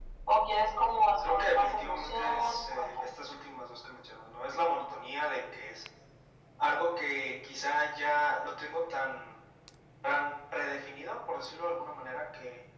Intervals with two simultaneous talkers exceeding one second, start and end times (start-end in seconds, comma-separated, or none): 1.3-3.1